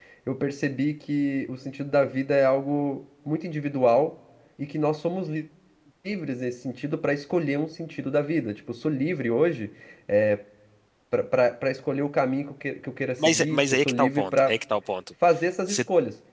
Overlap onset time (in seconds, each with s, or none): 13.2 s